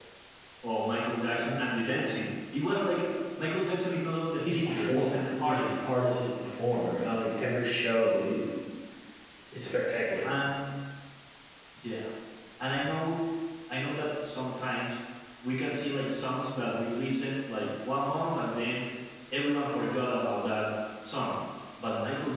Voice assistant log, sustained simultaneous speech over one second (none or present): present